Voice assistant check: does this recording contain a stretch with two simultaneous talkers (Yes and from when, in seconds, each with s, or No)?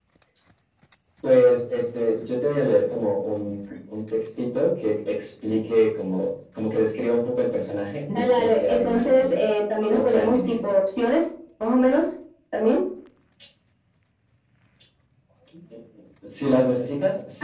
Yes, from 8.1 s